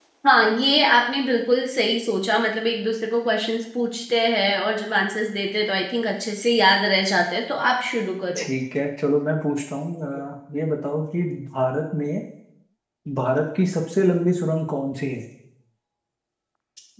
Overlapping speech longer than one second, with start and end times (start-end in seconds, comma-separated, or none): none